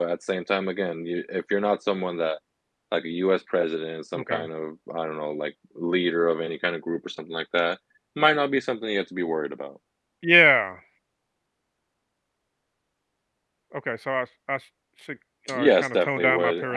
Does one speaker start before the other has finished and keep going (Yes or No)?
Yes